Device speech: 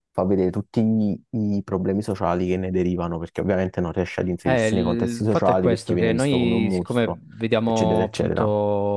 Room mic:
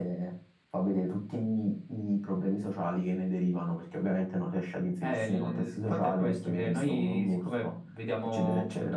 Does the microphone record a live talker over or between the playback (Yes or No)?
No